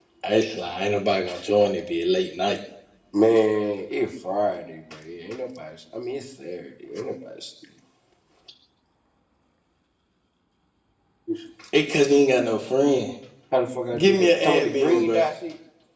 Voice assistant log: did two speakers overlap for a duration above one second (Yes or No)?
Yes